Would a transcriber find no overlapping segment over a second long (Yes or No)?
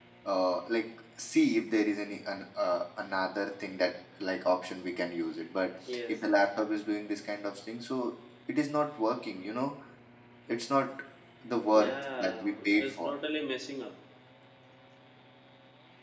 No